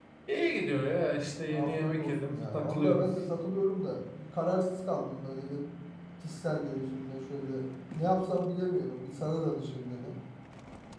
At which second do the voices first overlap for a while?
1.5 s

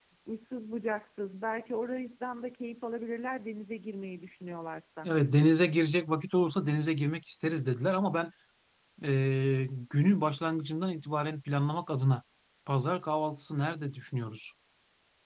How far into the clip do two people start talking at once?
none

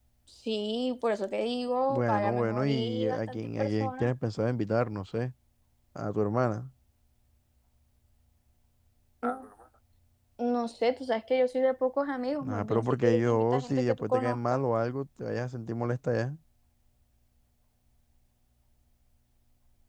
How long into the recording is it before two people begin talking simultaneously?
1.9 s

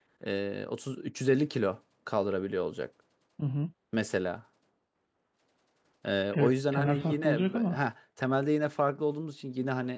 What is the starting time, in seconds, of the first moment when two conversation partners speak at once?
6.3 s

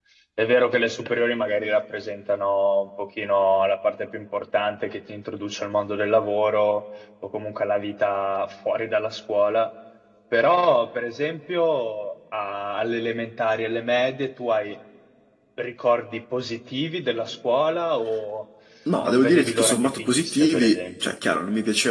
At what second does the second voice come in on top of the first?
19.0 s

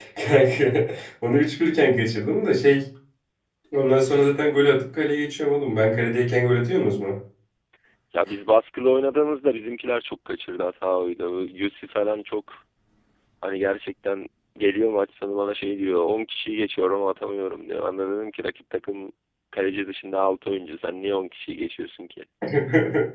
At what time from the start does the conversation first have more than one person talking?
none

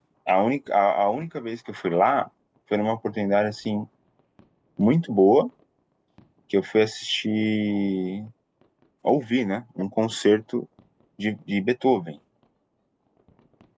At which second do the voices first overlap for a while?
none

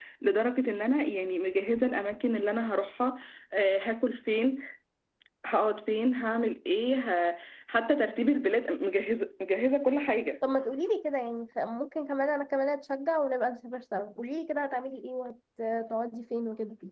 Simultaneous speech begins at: none

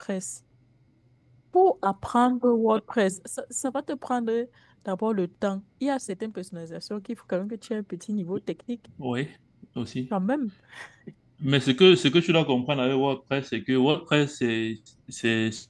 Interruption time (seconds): none

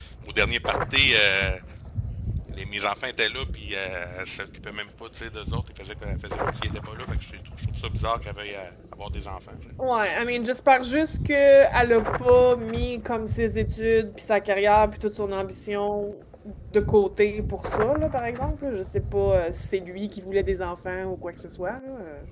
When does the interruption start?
none

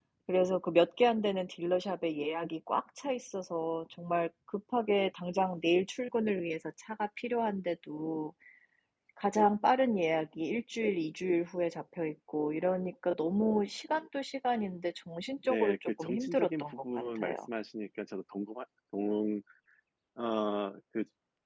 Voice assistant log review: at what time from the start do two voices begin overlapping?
15.4 s

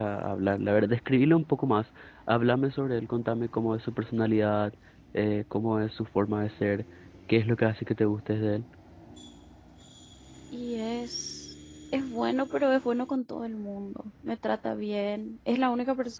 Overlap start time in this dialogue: none

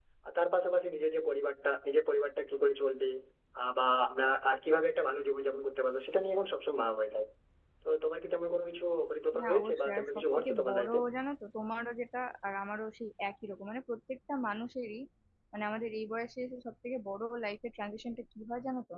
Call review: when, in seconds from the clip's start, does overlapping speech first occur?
9.3 s

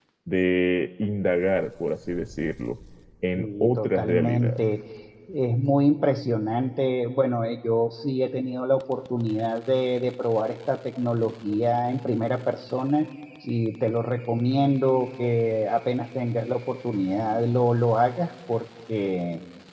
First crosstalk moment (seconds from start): 3.4 s

